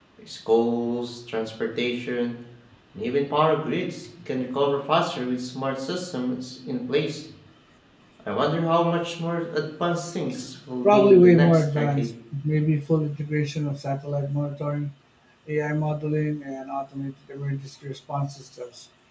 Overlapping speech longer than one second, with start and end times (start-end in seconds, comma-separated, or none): 10.8-12.1